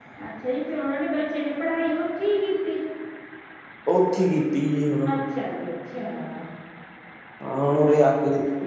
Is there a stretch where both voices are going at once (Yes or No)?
No